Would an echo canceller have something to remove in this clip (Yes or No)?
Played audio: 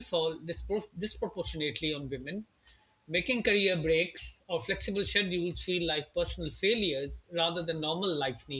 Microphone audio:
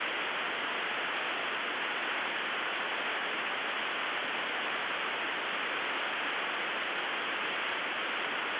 No